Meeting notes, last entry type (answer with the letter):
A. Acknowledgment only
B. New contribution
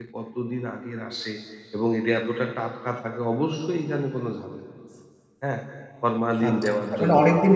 B